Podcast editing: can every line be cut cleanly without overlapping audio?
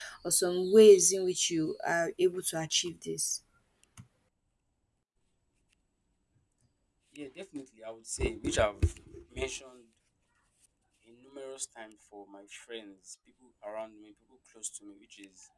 Yes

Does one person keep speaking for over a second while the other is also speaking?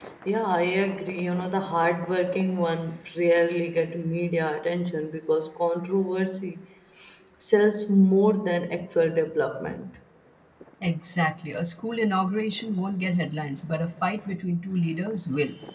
No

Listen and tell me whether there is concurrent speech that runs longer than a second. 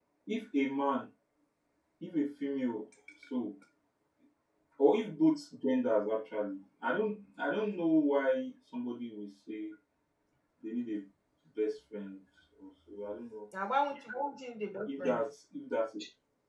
No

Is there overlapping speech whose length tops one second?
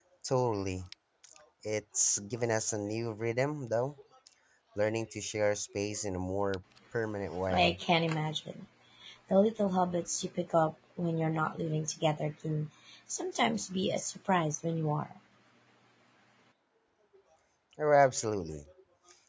No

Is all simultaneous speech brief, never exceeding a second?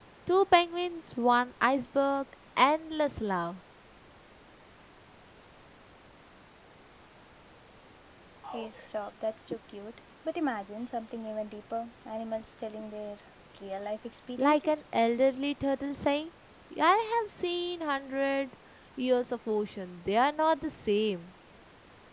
Yes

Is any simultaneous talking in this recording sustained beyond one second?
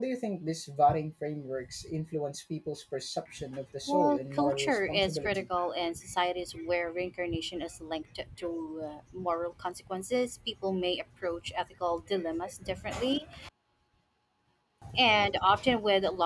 Yes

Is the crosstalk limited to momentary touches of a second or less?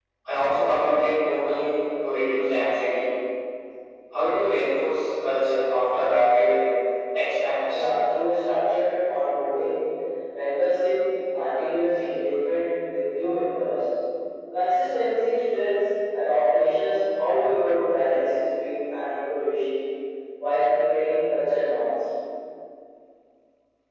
Yes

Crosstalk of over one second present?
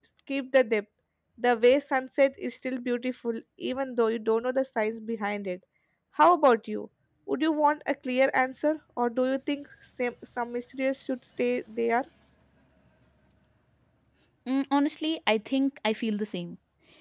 No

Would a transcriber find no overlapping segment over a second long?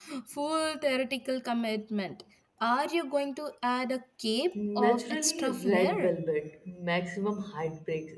No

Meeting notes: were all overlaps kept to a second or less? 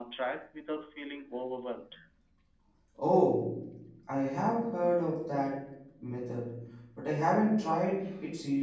Yes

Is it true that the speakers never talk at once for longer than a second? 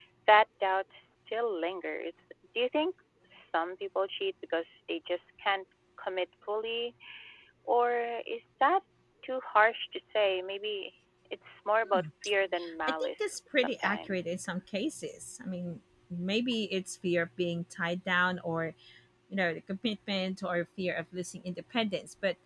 No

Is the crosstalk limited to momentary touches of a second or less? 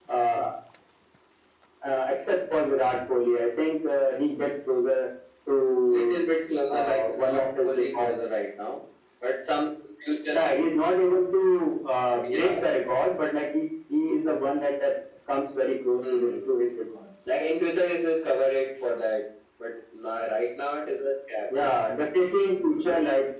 No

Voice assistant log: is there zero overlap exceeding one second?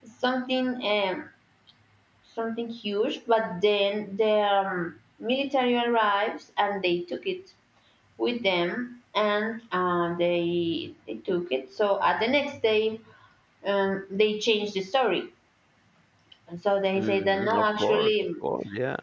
No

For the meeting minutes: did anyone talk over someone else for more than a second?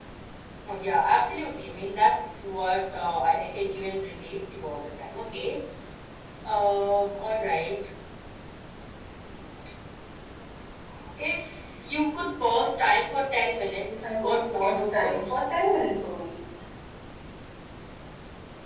Yes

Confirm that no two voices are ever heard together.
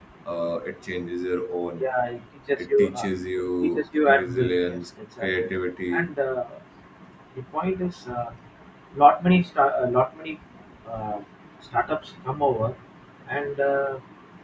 No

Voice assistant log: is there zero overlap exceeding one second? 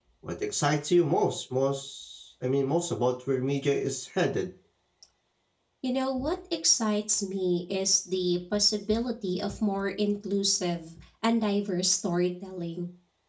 Yes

